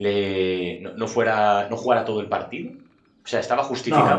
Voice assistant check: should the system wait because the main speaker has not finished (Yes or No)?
Yes